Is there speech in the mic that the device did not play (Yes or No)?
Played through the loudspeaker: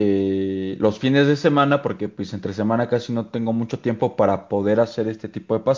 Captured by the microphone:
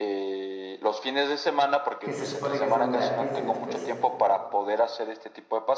Yes